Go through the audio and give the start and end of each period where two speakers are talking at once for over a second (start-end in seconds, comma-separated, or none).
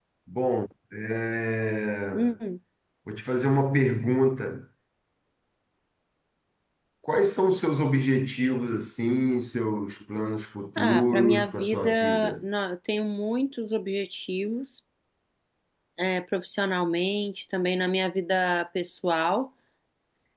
10.8-12.4